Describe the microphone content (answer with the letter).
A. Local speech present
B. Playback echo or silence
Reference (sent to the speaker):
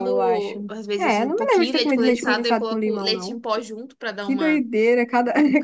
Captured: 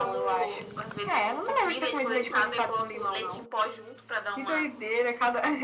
B